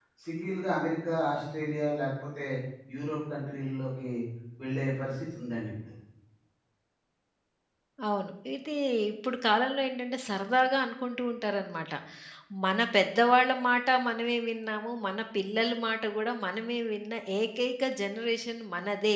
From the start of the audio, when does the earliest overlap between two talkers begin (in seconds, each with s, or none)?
none